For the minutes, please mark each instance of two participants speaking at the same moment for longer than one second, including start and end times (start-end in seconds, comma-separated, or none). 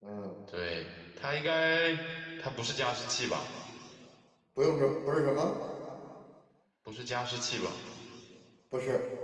none